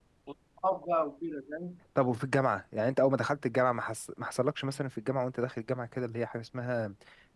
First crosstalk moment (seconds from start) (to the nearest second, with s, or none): none